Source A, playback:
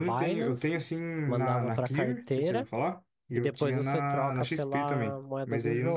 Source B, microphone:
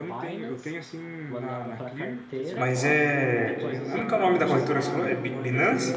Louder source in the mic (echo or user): user